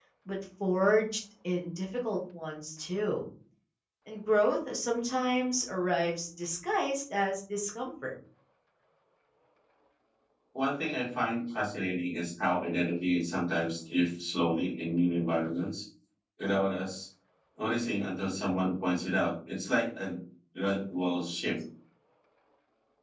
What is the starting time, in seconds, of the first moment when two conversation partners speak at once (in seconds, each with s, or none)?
none